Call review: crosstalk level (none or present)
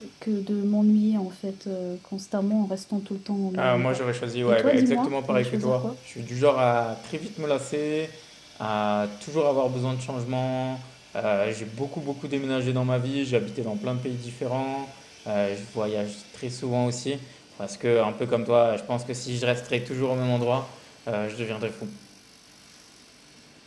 present